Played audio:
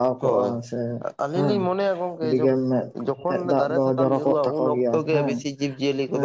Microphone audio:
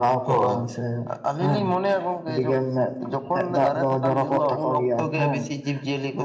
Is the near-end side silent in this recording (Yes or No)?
Yes